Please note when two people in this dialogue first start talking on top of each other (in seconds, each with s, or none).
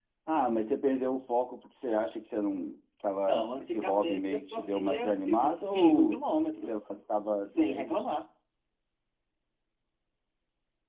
3.3 s